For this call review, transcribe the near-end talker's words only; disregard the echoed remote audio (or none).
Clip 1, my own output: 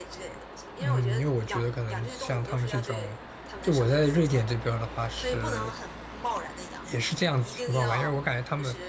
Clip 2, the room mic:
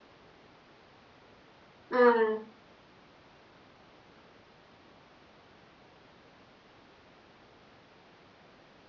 嗯。